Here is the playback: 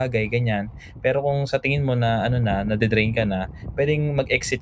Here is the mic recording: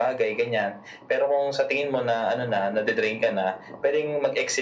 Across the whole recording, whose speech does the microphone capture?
echo only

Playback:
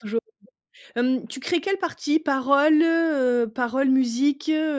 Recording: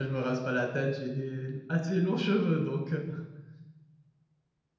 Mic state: user only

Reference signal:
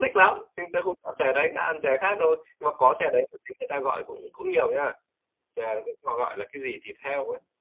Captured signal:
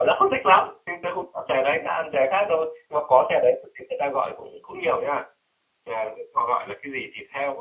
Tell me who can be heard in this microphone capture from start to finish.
echo only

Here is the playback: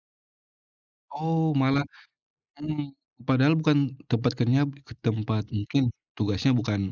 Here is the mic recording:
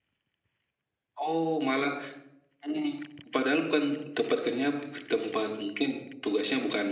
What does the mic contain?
echo only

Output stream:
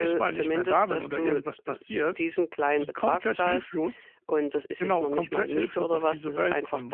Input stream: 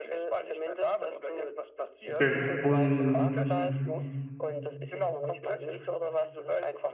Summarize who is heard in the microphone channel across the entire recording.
both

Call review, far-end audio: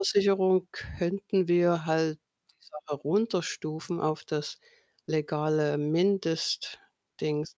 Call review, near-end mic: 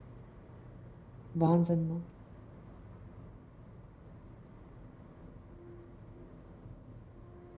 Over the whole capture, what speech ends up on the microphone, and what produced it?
user only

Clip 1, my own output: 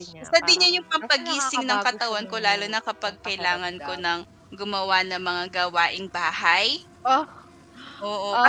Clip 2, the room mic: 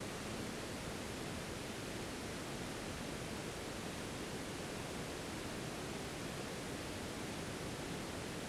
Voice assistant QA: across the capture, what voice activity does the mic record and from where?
neither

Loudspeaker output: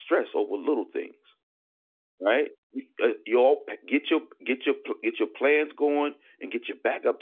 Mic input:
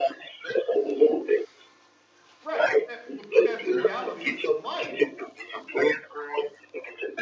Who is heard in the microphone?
both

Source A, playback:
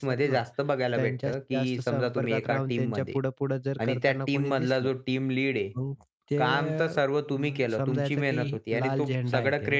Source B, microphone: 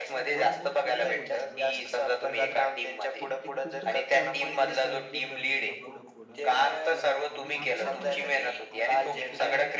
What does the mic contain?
both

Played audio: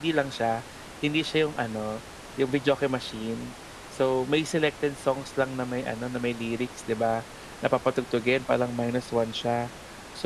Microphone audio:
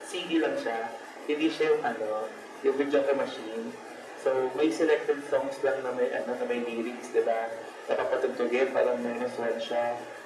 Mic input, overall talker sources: echo only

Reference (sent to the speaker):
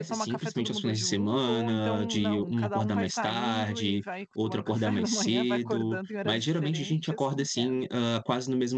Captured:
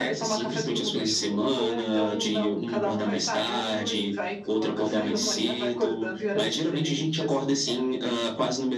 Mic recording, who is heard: echo only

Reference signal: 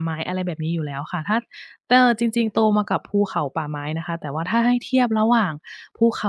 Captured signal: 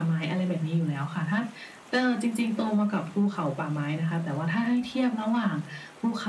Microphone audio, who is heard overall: echo only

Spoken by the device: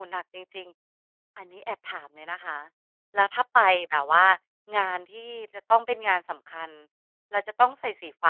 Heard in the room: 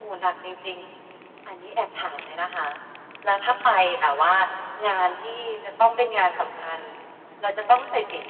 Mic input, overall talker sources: echo only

